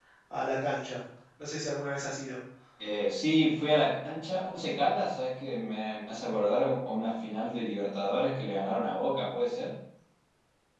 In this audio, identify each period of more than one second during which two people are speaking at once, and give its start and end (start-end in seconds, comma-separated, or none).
none